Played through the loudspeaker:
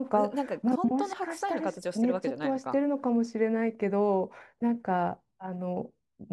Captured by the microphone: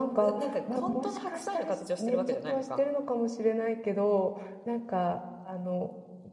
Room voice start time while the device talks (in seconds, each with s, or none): none